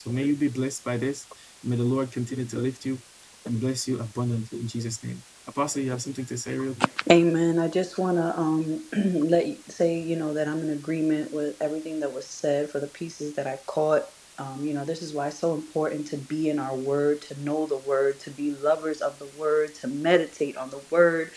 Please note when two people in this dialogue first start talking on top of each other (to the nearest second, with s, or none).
none